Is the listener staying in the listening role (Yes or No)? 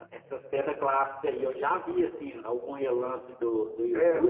No